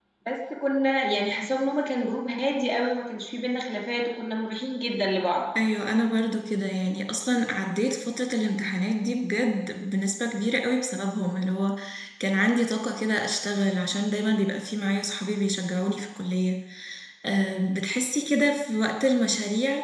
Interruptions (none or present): none